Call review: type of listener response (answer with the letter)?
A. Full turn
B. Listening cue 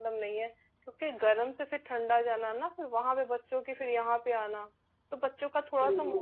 B